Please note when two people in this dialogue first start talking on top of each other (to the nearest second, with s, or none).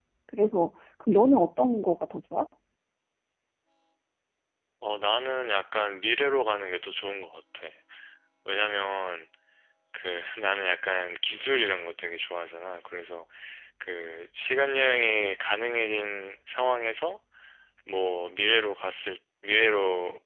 none